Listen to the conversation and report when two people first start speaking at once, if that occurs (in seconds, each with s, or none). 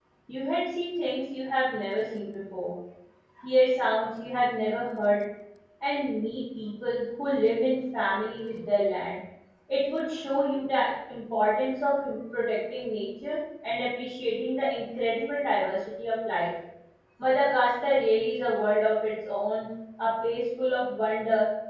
none